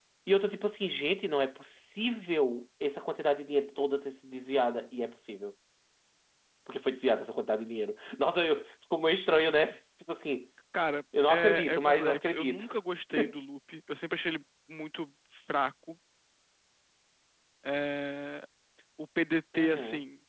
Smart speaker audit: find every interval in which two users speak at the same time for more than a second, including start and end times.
11.3-12.7

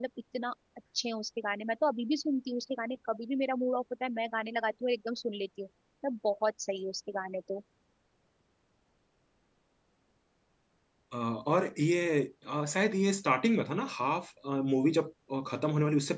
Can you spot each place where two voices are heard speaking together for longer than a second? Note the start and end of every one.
none

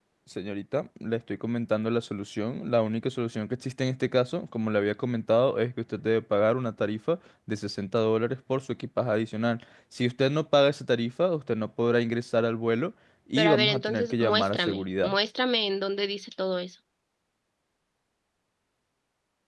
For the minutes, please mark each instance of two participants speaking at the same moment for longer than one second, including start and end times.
13.4-15.2

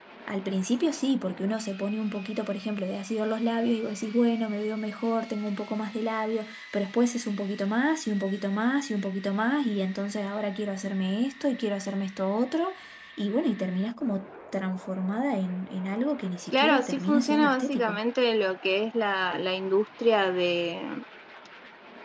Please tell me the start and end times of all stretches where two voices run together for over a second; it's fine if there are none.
16.5-18.0

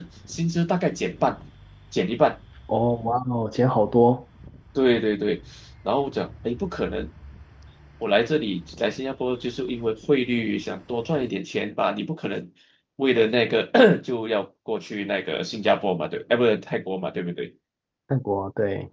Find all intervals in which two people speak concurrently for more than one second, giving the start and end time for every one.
none

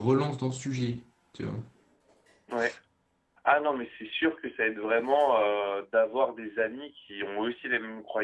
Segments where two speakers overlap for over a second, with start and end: none

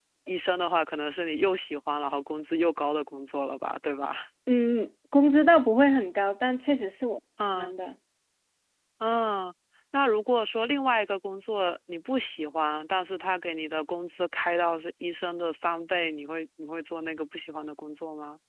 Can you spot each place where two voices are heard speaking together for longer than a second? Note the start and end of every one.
none

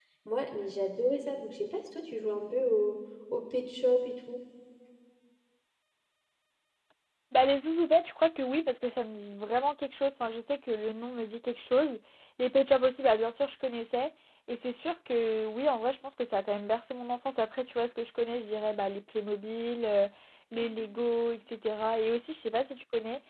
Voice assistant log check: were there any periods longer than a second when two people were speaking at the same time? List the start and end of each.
none

